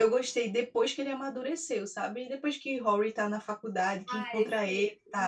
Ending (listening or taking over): taking over